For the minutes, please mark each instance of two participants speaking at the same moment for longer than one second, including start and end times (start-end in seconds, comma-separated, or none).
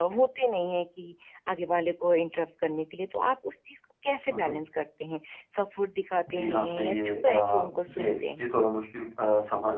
6.3-8.4